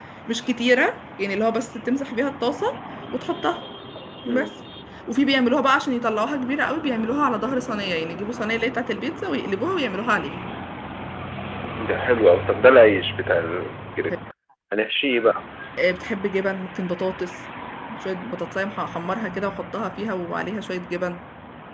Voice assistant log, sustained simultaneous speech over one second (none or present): none